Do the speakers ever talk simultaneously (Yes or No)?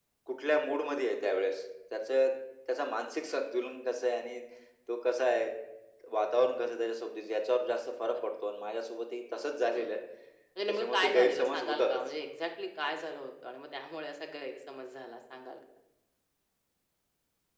Yes